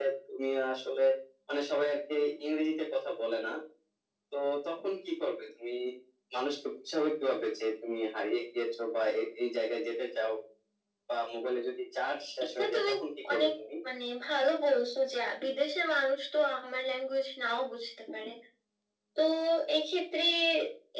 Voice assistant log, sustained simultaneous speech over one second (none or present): none